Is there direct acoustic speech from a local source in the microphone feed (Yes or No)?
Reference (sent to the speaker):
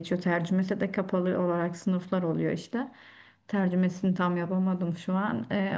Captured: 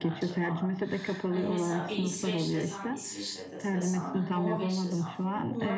Yes